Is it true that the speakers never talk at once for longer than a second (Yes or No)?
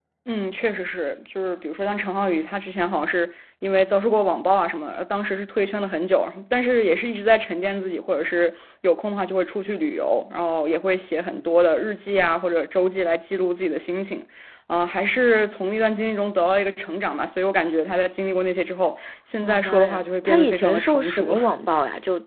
No